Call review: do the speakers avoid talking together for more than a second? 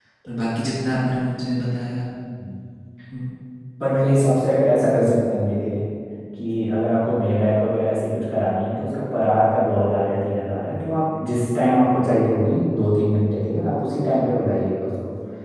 Yes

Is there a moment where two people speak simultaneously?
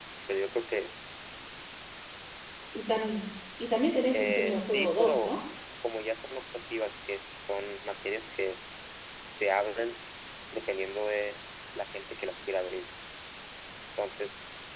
Yes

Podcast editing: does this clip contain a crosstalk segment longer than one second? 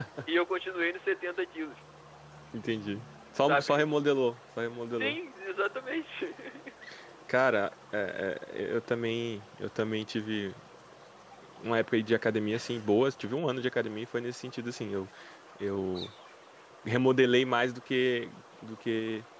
No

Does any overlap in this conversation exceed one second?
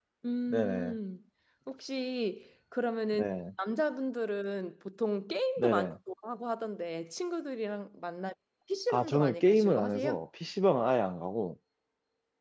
Yes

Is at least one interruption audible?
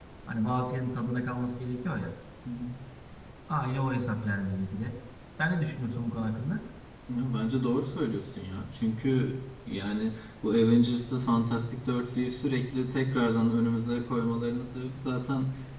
No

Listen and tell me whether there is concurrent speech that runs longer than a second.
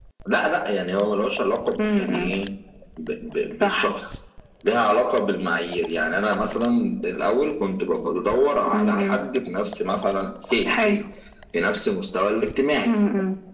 No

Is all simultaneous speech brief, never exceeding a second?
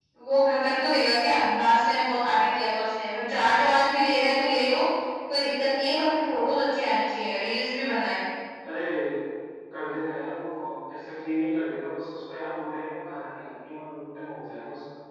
Yes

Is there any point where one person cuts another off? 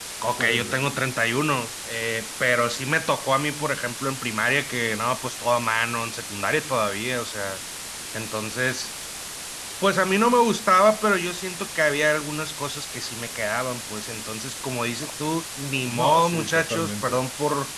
Yes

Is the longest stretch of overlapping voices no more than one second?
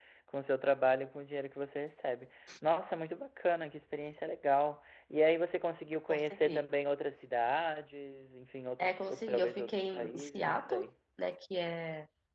No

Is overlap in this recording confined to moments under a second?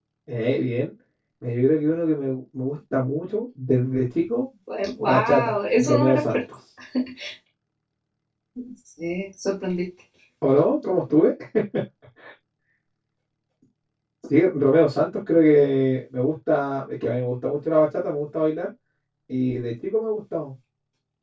No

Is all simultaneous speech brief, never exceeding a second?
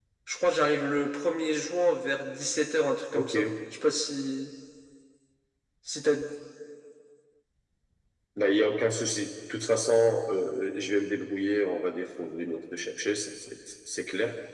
Yes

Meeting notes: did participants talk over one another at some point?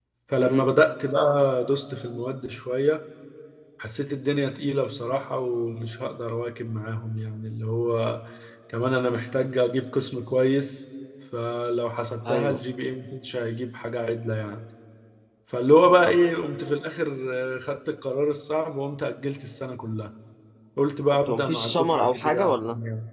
Yes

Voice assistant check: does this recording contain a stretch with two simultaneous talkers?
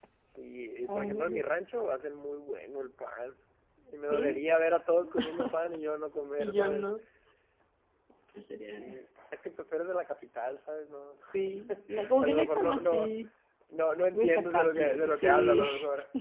Yes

